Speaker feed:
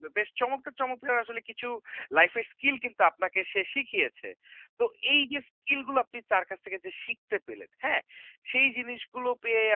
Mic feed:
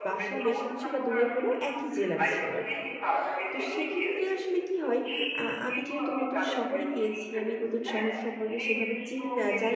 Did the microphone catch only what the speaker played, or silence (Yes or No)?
No